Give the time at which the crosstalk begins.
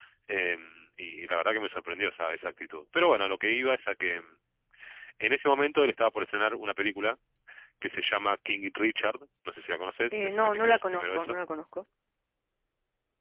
10.1 s

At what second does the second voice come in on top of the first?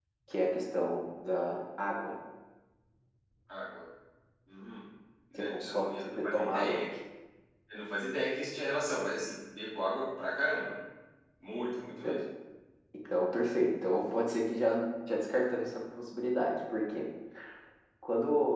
5.3 s

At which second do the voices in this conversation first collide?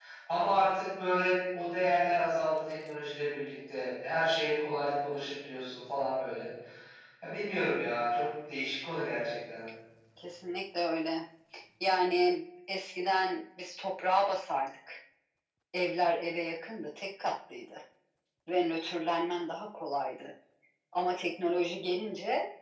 none

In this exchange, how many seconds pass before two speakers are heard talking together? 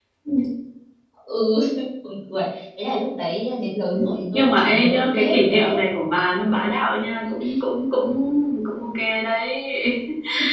4.0 s

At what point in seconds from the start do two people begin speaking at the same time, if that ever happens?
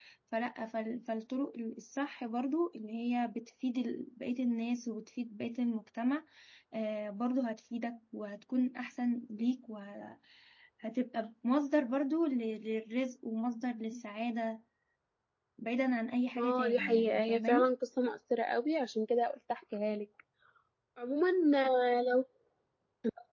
16.4 s

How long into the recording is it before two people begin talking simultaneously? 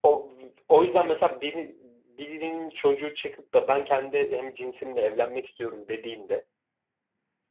none

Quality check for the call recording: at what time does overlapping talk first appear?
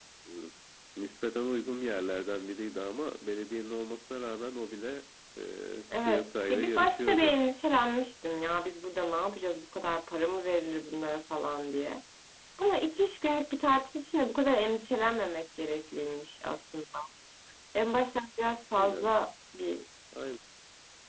6.0 s

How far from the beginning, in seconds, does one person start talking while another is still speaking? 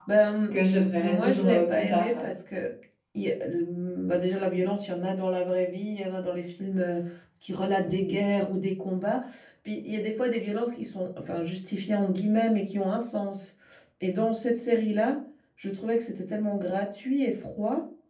1.0 s

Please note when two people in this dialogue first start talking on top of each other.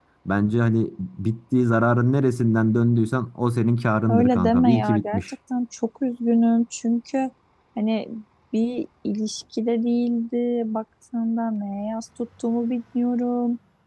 4.1 s

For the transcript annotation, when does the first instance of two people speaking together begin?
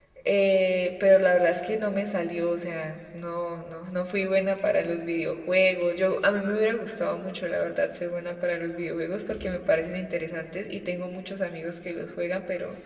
none

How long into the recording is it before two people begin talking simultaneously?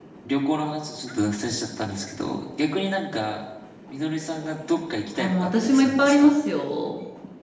5.2 s

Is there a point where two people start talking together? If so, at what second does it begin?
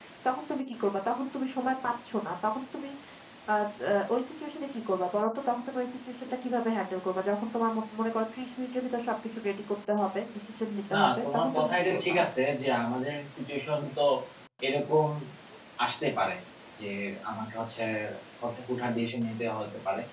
10.9 s

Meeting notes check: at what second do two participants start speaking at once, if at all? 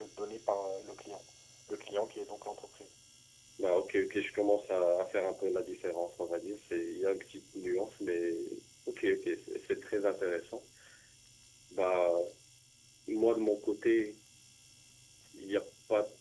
none

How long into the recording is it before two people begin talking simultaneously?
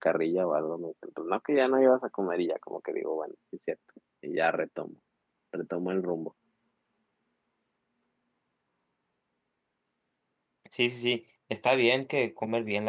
none

